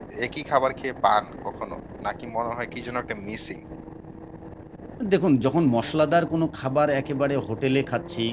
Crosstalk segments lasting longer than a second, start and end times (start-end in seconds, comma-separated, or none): none